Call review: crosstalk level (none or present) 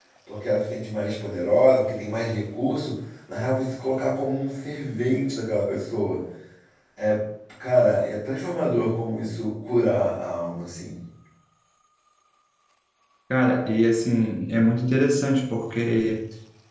none